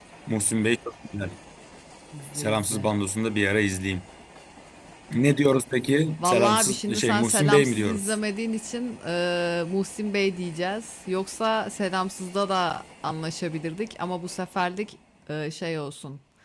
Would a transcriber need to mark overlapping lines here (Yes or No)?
Yes